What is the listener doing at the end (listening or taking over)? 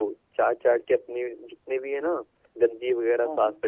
listening